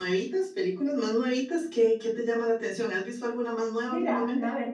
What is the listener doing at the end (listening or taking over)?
taking over